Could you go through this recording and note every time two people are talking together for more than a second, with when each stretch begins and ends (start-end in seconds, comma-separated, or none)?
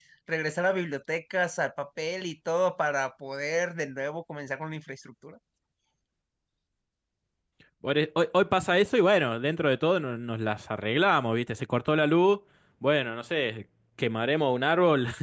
none